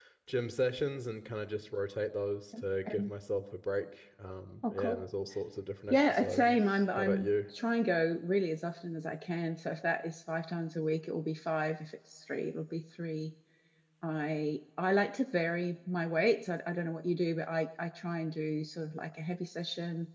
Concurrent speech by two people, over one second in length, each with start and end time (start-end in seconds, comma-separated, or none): 5.9-7.3